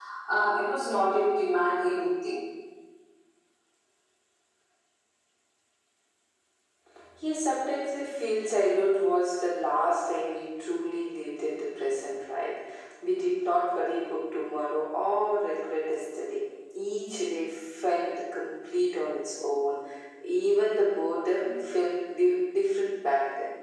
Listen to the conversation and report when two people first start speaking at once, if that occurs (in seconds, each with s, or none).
none